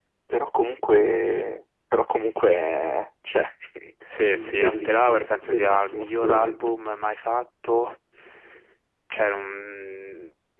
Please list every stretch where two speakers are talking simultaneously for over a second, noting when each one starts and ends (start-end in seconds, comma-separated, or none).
4.3-6.6